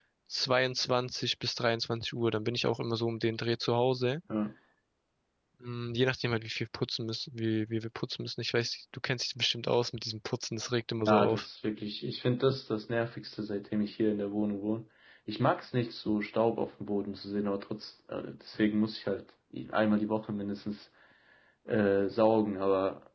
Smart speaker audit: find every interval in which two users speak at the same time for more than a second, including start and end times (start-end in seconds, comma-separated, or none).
none